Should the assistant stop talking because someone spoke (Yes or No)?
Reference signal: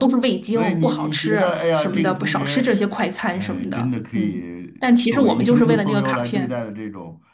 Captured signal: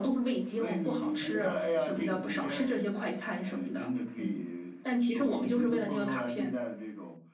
Yes